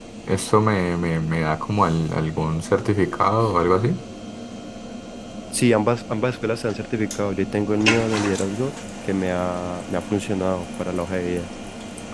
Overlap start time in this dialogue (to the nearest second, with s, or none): none